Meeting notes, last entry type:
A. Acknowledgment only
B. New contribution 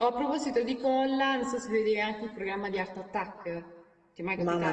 B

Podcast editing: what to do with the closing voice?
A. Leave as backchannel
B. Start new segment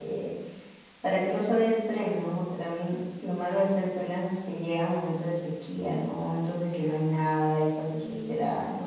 A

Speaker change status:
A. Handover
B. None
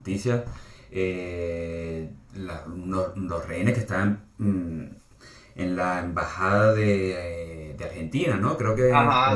A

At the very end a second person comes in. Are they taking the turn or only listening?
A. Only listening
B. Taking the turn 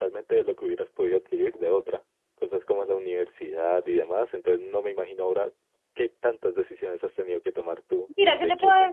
B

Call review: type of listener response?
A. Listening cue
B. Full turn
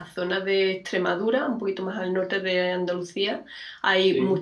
A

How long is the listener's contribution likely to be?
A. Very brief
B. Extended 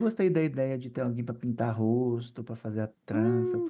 B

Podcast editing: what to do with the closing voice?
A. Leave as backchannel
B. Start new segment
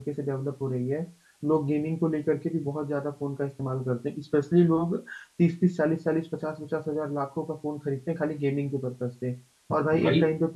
A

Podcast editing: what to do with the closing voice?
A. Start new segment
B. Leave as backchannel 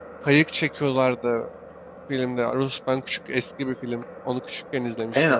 A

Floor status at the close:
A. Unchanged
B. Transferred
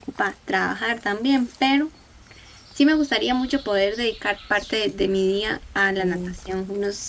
A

